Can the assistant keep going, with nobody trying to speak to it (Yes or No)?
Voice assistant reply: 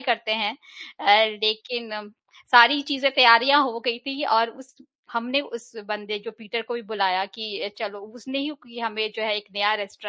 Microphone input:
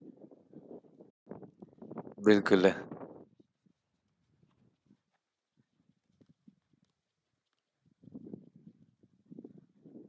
No